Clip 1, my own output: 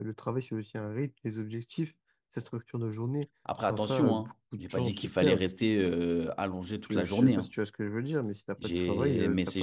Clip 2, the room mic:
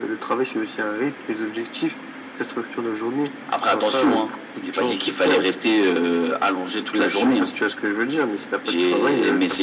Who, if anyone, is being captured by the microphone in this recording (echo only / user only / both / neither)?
echo only